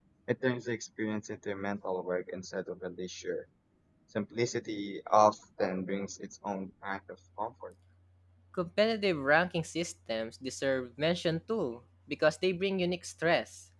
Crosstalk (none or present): none